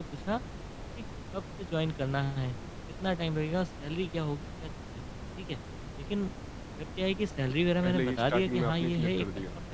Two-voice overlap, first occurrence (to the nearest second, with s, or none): 8 s